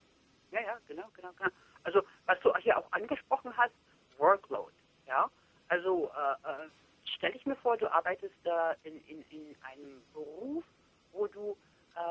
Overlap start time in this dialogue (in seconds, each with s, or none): none